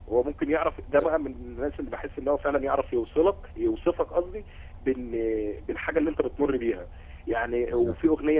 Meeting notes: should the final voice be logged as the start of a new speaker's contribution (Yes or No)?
No